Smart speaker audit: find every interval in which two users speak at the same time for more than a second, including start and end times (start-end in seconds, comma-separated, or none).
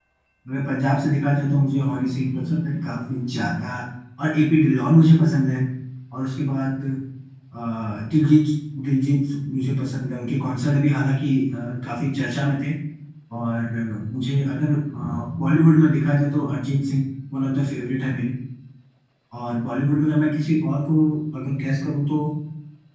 none